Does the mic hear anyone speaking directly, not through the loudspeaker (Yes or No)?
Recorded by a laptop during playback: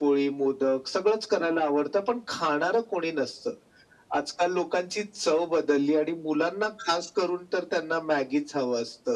No